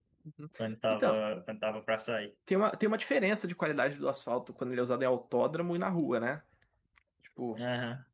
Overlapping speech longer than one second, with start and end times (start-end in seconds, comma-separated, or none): none